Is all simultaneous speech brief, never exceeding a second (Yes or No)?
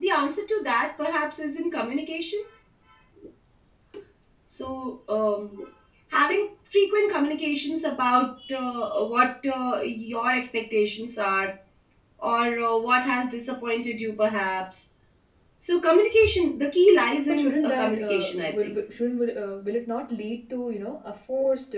No